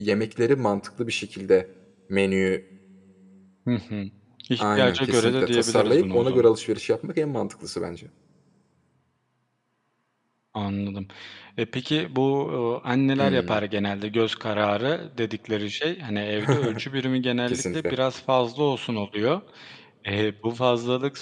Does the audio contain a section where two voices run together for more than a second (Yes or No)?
Yes